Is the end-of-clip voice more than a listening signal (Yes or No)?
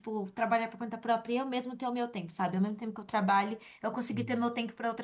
No